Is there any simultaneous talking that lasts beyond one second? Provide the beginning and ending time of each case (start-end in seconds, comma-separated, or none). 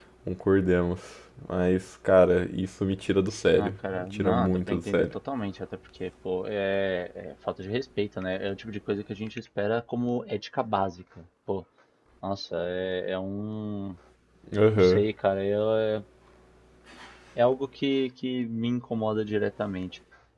3.6-5.1